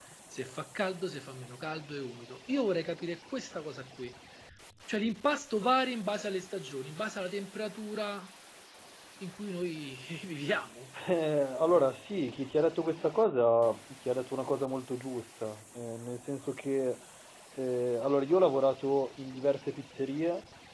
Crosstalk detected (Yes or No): No